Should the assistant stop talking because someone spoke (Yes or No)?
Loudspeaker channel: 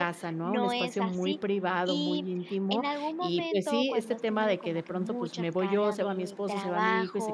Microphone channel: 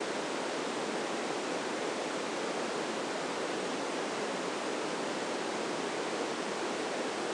No